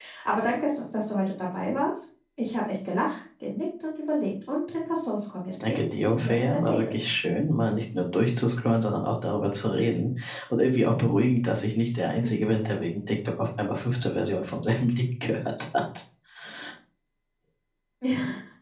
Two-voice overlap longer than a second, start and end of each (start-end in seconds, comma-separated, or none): 5.7-6.9